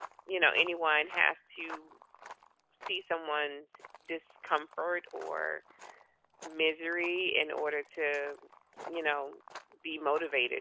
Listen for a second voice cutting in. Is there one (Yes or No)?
No